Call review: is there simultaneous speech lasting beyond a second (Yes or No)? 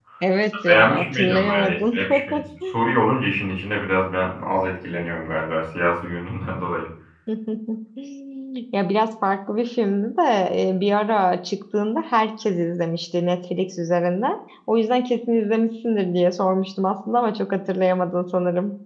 Yes